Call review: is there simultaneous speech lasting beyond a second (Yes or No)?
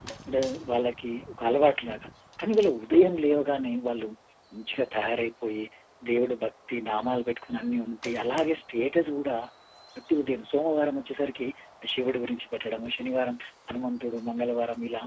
No